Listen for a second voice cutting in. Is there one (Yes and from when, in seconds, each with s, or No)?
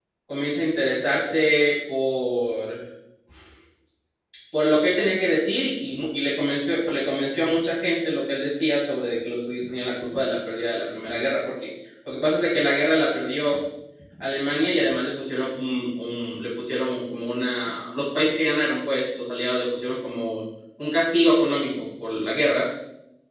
No